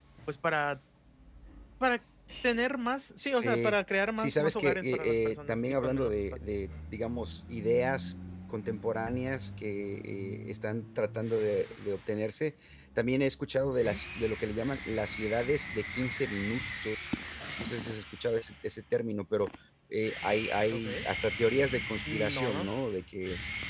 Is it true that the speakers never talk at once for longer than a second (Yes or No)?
No